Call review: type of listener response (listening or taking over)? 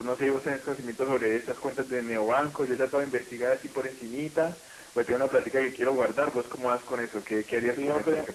taking over